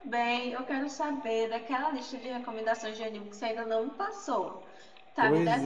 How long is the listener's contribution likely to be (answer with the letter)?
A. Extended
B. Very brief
A